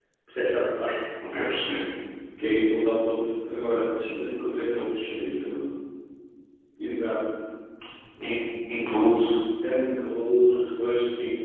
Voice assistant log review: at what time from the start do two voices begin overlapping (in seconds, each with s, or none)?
none